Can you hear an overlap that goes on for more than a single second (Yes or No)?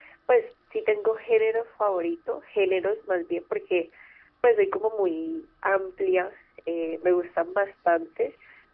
No